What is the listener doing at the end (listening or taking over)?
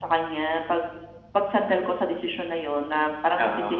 listening